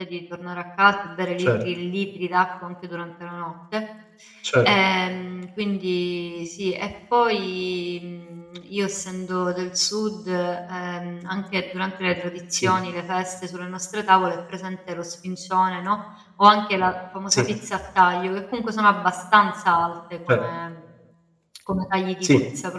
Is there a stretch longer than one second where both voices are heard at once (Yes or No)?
No